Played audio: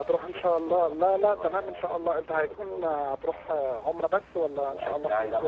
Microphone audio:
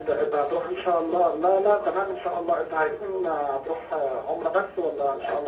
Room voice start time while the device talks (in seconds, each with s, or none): none